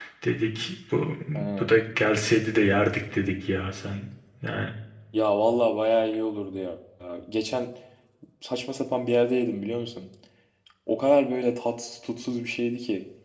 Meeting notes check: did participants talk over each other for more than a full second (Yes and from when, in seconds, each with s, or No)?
No